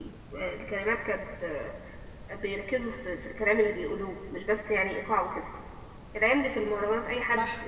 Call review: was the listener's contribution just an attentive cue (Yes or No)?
Yes